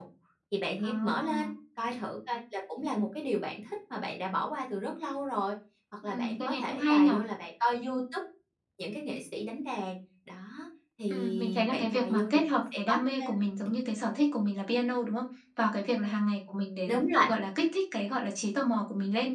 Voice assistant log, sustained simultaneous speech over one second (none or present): present